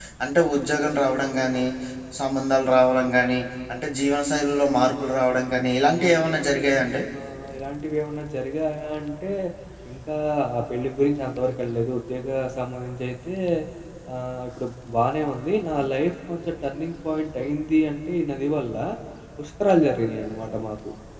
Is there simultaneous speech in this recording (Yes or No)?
No